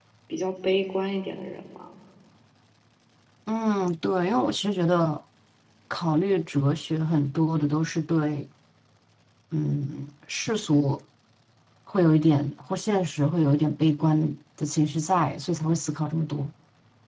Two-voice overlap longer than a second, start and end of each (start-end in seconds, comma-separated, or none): none